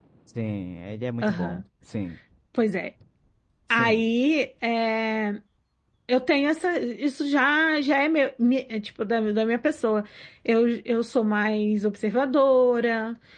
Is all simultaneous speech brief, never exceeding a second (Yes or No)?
Yes